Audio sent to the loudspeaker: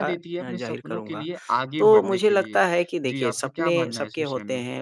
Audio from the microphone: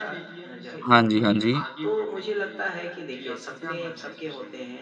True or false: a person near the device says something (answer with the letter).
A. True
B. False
A